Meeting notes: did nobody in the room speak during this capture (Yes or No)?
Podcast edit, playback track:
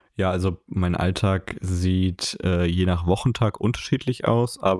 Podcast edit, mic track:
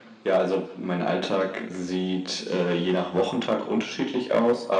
Yes